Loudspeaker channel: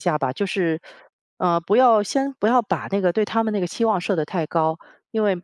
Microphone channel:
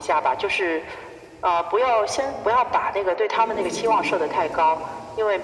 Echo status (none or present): present